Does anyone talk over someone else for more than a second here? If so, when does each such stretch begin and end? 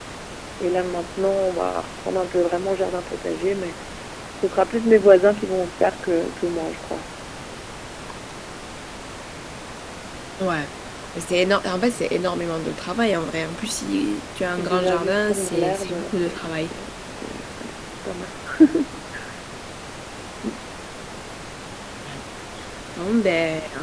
14.6-16.7

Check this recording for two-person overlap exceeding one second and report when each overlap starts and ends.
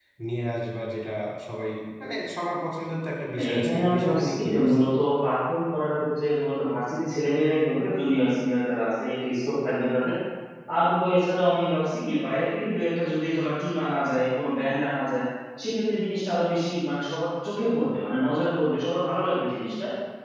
3.4-4.8

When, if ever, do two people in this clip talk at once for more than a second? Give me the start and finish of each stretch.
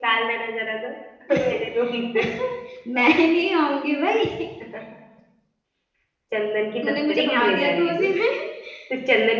6.8-8.1

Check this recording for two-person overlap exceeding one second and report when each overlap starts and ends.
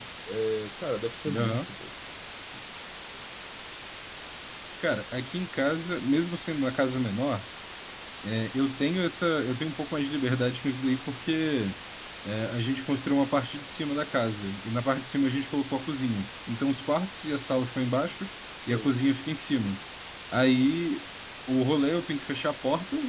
none

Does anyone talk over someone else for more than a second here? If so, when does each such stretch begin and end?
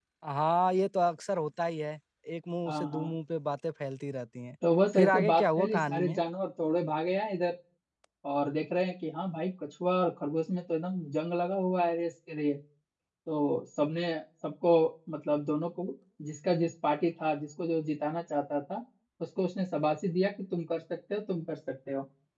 5.0-6.2

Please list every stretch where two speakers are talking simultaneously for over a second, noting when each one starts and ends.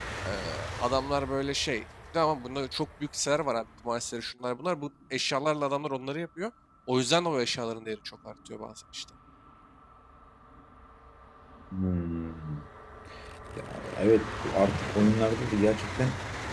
none

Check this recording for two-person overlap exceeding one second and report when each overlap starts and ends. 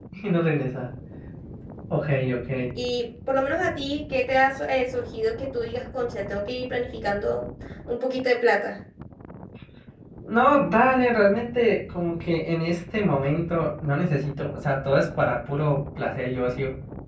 none

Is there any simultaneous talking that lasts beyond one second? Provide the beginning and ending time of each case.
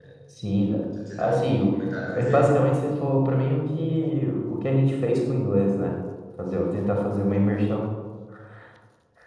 1.2-2.5

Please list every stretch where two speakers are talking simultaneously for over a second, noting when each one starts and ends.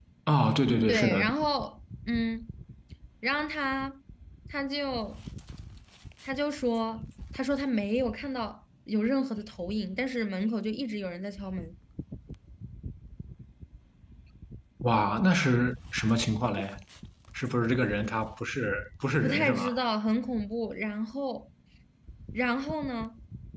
none

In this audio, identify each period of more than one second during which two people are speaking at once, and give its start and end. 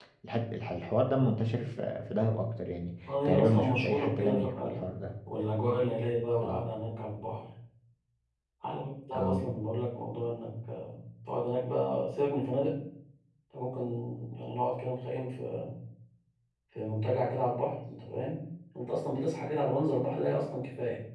3.2-4.9

